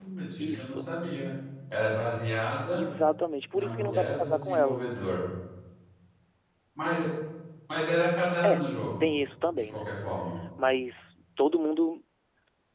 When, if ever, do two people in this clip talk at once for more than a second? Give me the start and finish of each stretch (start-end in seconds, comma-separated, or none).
3.5-4.8